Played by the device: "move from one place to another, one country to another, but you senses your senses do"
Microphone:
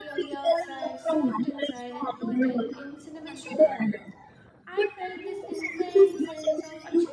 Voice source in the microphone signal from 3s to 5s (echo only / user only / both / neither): both